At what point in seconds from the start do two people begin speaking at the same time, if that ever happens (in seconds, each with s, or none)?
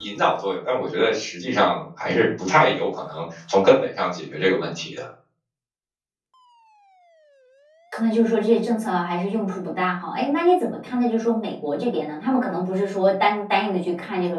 none